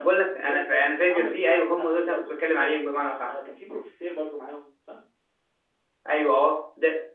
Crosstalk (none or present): present